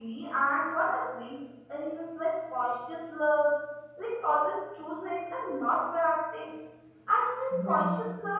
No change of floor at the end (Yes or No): Yes